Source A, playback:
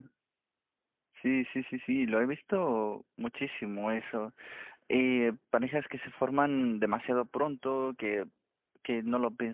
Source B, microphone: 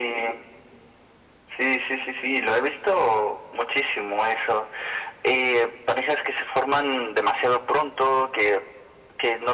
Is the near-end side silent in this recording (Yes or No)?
Yes